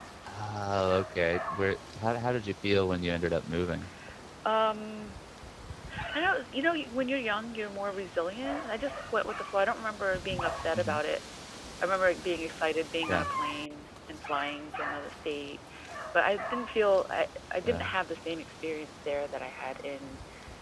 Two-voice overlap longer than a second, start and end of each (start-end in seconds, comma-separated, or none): none